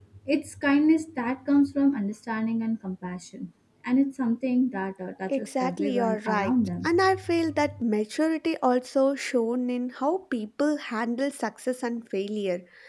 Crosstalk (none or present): present